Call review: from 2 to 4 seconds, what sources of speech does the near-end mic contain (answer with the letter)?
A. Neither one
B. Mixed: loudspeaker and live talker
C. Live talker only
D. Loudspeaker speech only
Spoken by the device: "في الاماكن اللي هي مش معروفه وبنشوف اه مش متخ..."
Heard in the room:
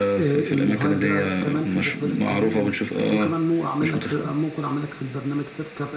B